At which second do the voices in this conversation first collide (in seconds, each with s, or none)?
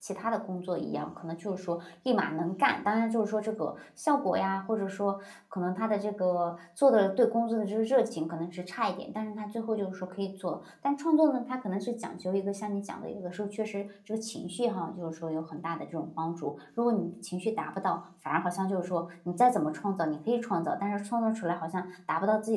none